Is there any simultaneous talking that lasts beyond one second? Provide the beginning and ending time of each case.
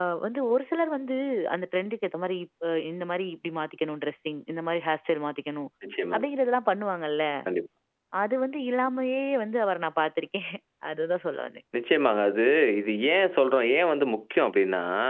none

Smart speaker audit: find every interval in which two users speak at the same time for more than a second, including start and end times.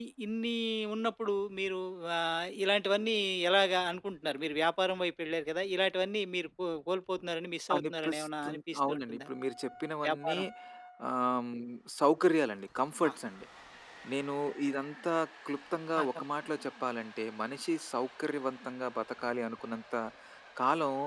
7.8-9.3

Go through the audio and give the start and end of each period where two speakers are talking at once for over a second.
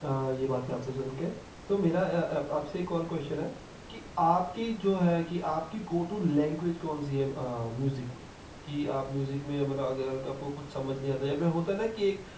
none

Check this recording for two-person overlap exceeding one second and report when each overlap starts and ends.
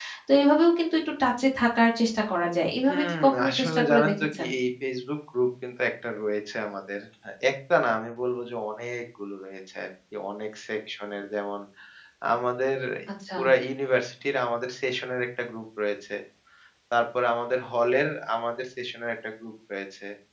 2.9-4.5

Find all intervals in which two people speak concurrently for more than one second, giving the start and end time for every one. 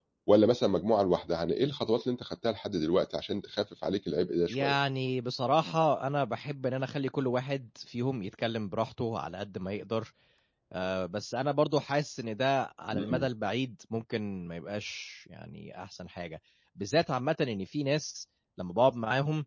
none

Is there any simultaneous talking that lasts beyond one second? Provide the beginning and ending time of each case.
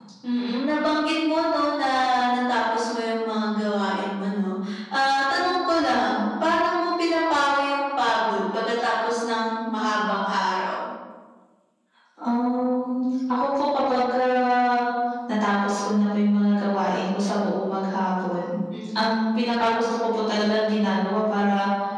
none

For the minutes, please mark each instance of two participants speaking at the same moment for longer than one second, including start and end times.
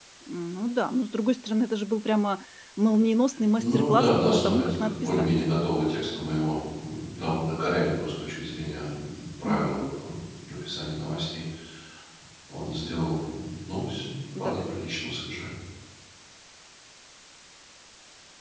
3.6-5.3

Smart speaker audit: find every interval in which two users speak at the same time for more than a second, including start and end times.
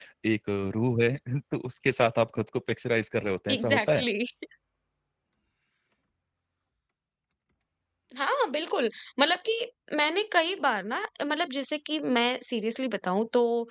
none

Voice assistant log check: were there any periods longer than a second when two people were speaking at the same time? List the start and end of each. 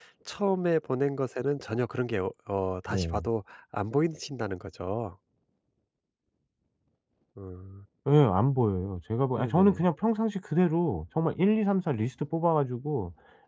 none

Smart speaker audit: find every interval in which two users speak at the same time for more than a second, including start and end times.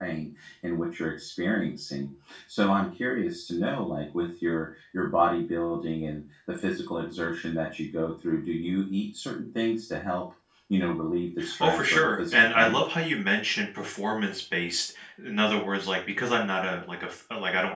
11.6-12.8

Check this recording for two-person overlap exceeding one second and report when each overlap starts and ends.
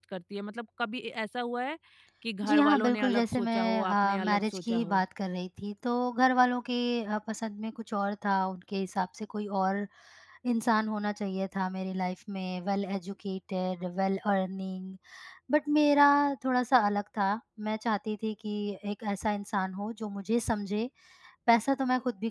2.5-5.0

